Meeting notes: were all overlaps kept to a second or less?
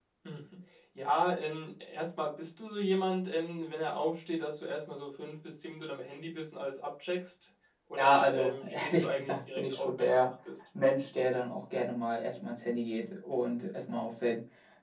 No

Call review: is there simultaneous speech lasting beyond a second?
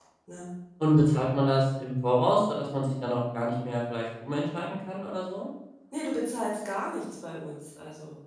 No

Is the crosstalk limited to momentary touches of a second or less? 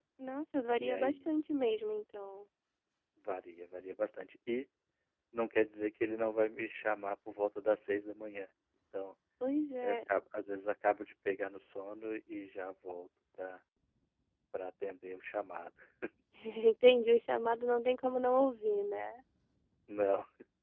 Yes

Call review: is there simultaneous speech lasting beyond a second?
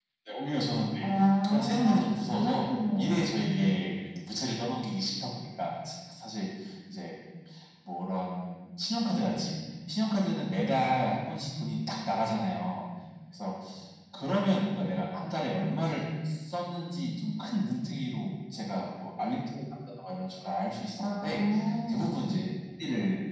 Yes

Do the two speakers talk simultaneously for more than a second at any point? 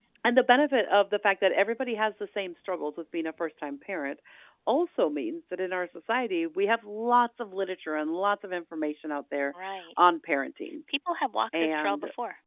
No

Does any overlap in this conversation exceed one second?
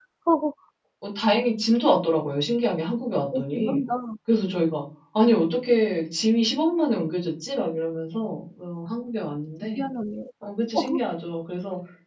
No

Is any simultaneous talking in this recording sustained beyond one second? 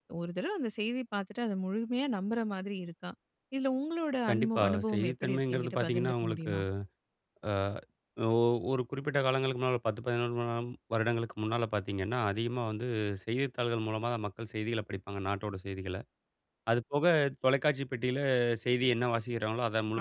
Yes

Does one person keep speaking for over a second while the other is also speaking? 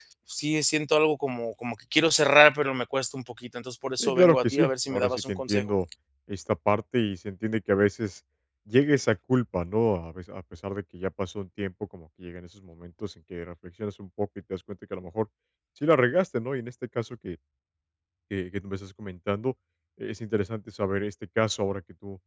Yes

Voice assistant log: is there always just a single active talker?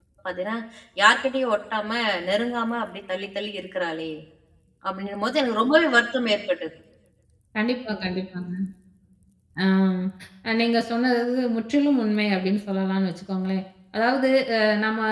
Yes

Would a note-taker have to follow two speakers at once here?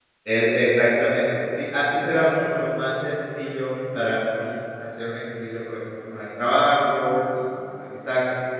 No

